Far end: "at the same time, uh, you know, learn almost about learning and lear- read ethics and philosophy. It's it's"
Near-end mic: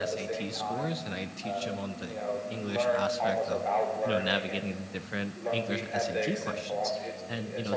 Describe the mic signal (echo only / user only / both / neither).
both